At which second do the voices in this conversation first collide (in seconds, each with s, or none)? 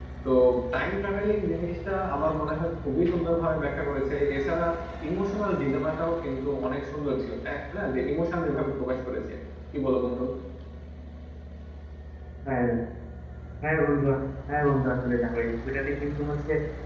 none